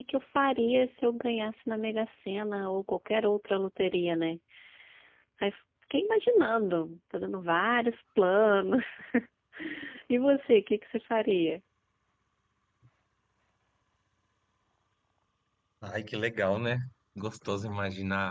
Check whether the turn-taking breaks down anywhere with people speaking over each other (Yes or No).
No